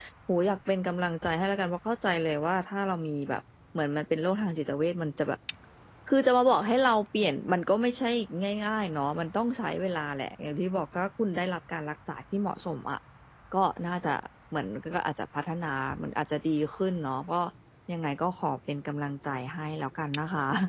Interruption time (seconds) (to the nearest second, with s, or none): none